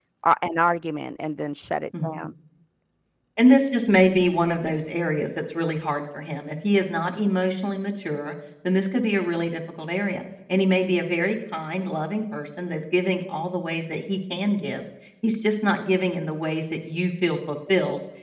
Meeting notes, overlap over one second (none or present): none